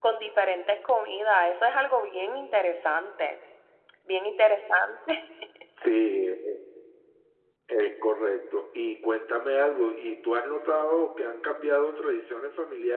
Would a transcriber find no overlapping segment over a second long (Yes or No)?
Yes